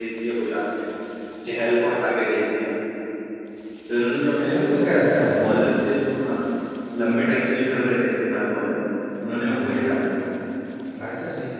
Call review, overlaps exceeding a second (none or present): none